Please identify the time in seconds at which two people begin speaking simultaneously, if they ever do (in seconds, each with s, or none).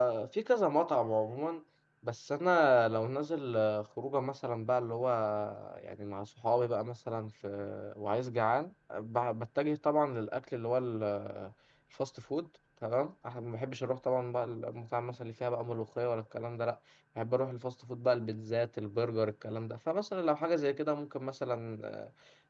none